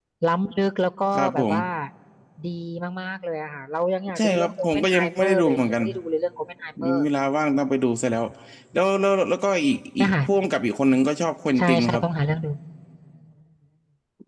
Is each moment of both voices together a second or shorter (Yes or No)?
No